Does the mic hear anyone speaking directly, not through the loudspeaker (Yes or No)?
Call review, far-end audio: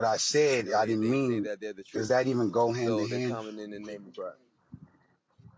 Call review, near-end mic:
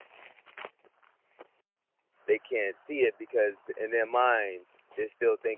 Yes